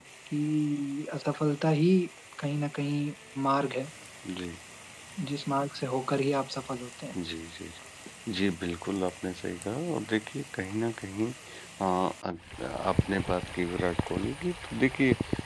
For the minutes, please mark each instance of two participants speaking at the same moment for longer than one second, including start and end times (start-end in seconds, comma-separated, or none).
none